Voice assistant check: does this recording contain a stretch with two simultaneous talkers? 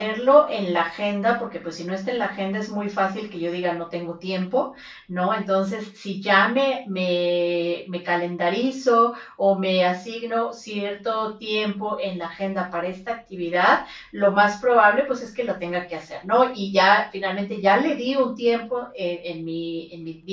No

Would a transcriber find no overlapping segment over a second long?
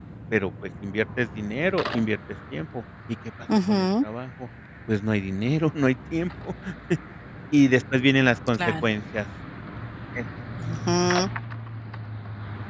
Yes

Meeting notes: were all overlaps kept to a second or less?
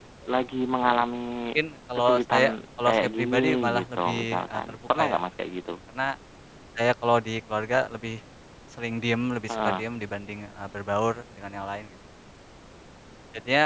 No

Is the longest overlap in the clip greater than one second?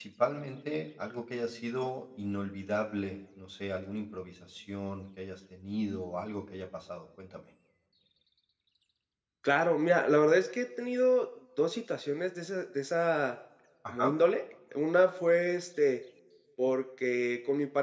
No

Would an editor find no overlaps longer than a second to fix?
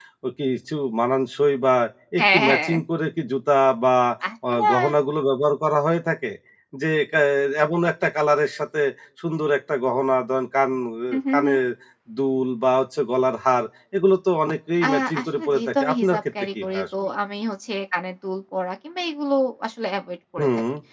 No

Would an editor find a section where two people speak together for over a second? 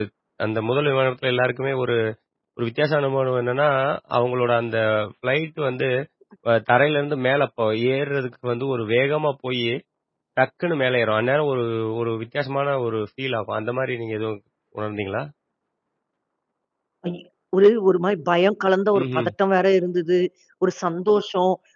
No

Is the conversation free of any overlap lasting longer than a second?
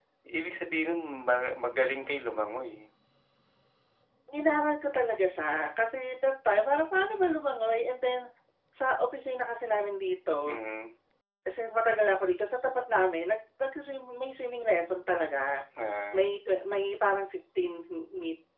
Yes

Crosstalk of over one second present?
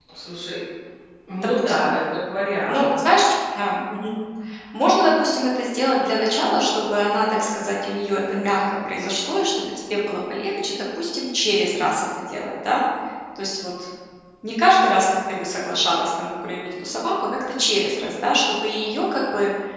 No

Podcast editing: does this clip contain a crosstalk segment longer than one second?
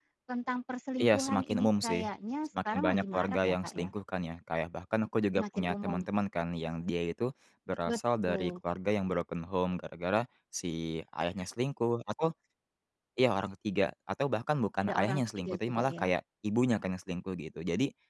Yes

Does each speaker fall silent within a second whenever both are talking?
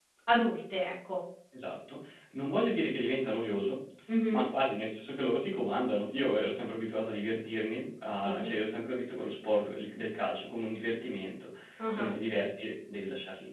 Yes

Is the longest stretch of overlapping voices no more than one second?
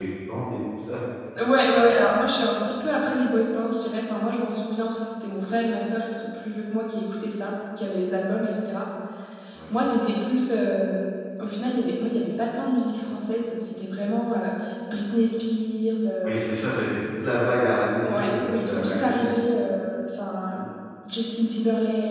No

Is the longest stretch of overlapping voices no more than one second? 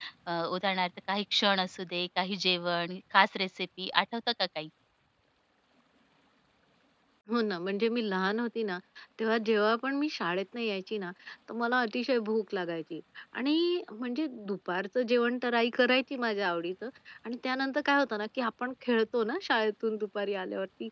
Yes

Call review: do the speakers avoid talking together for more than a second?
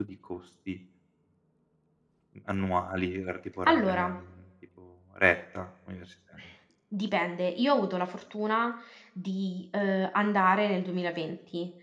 Yes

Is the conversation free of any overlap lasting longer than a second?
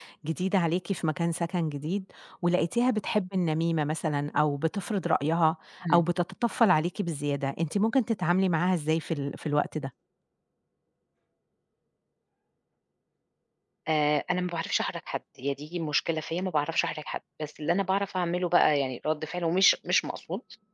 Yes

